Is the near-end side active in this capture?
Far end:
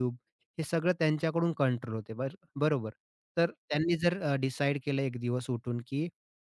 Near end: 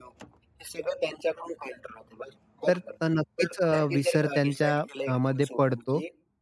Yes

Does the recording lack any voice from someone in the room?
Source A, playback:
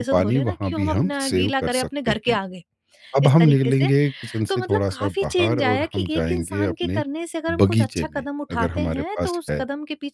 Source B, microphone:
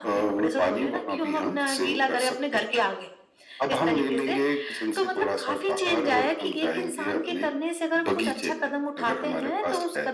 Yes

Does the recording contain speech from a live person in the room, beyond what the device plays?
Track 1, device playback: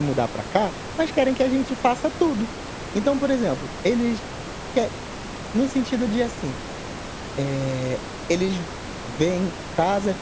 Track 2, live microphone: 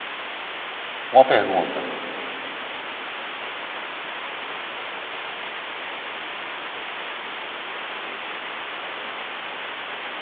Yes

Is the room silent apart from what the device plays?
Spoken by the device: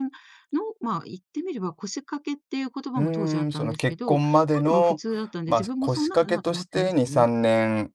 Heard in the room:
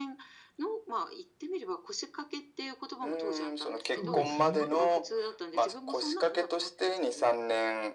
No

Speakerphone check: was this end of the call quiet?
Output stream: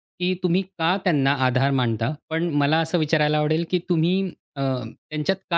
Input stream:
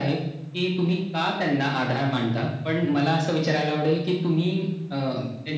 Yes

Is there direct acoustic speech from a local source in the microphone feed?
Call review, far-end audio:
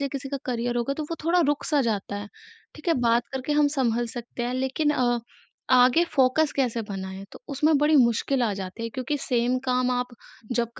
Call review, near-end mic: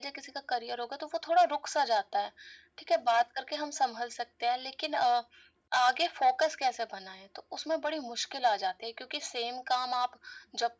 No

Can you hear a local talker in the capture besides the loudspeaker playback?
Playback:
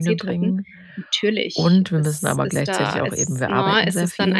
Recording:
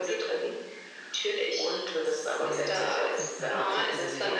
Yes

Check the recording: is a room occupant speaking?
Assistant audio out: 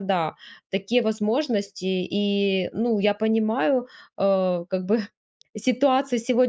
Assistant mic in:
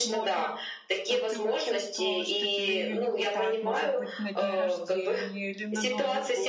Yes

